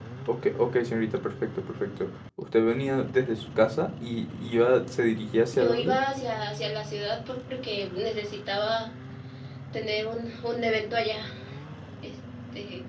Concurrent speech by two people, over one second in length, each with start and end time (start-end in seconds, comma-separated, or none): none